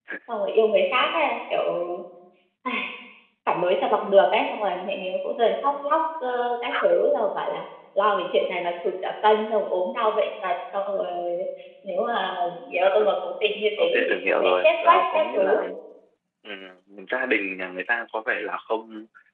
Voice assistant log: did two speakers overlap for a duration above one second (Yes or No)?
Yes